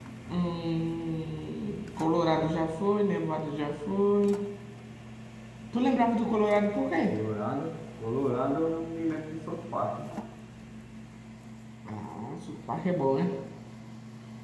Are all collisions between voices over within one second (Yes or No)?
Yes